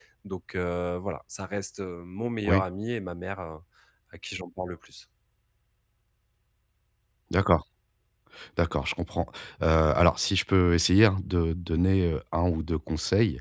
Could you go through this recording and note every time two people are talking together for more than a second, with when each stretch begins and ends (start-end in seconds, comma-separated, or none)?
none